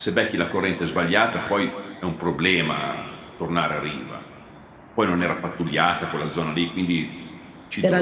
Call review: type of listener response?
listening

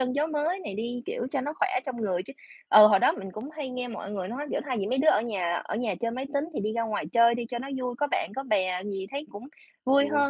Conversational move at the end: listening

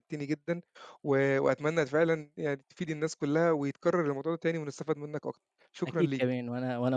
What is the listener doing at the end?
taking over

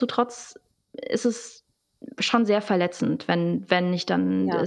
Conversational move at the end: listening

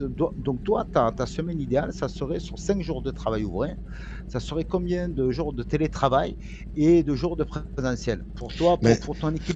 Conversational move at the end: listening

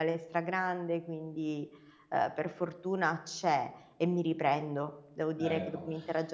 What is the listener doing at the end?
listening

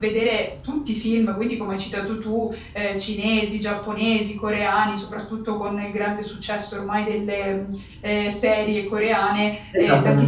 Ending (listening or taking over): listening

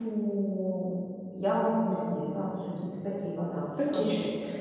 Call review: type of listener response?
taking over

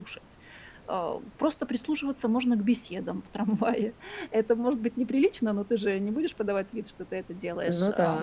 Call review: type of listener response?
listening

